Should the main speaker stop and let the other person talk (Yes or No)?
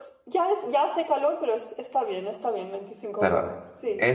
Yes